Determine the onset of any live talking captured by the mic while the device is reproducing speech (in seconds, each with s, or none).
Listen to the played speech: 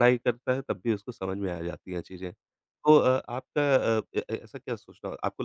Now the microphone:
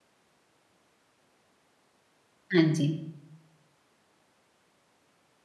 2.5 s